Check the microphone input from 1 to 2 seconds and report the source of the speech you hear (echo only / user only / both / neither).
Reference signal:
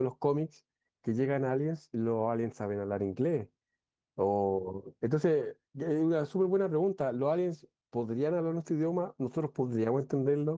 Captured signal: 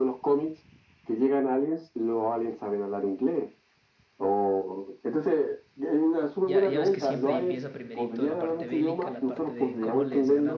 echo only